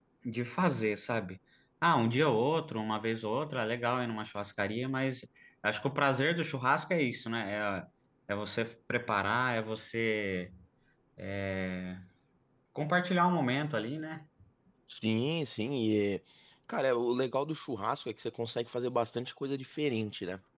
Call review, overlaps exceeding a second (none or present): none